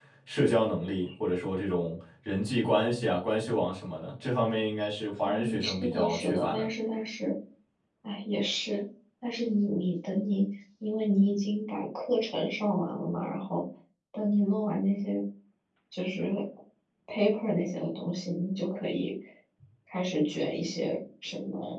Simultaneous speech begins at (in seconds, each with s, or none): 5.2 s